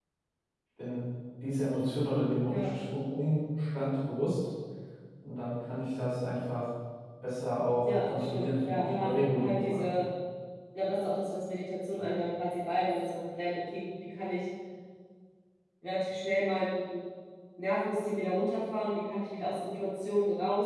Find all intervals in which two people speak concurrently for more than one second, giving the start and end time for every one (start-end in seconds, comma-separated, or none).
7.8-9.9